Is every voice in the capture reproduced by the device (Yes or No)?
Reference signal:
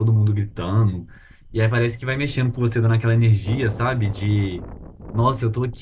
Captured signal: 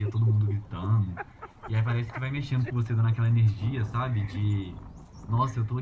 Yes